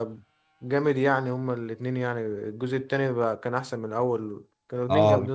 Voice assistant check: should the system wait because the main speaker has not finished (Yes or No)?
No